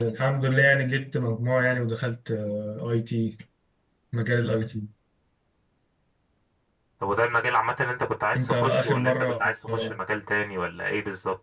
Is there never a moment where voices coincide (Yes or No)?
No